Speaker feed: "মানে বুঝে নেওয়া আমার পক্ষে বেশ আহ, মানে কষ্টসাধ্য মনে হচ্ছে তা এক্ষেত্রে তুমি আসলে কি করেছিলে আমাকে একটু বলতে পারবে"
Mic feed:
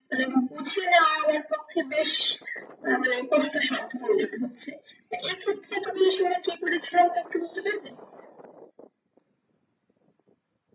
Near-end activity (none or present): none